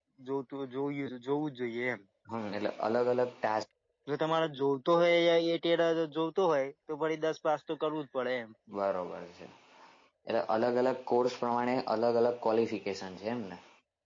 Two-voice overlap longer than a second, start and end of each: none

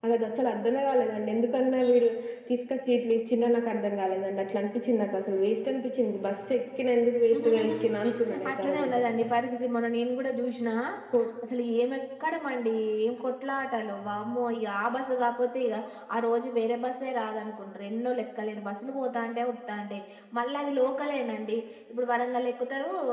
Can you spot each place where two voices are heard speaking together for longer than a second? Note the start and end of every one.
7.3-9.0

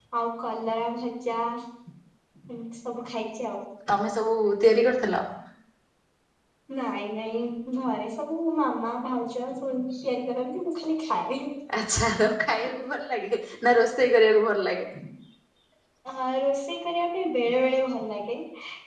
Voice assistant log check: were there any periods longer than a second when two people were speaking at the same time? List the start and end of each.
none

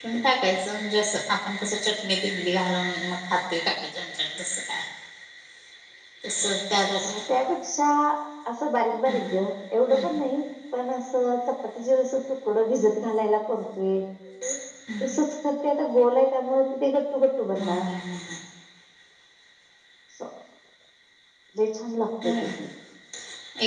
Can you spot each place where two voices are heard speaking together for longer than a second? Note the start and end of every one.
none

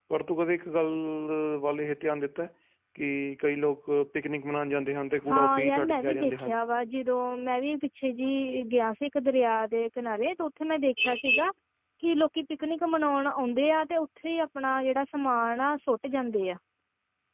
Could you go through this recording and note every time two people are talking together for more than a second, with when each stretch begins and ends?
5.3-6.5

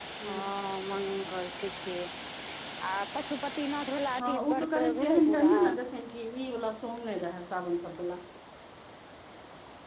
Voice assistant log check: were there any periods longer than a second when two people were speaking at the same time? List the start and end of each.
4.2-5.5

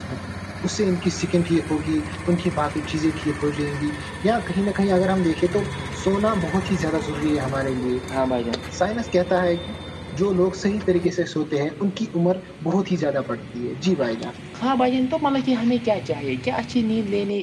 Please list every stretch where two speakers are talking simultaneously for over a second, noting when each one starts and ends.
none

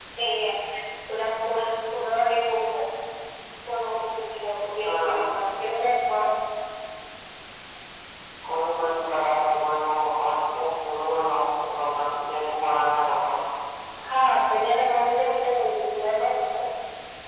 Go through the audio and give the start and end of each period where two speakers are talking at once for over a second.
none

